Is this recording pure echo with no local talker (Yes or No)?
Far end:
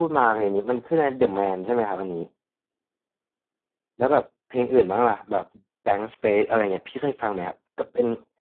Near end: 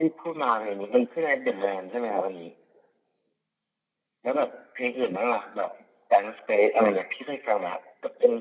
Yes